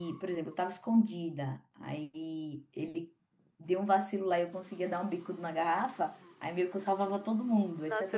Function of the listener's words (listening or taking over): taking over